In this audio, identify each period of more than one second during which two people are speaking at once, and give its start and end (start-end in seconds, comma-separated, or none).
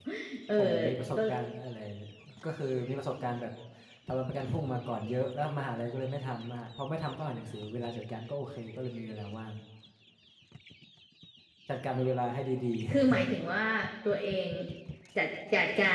none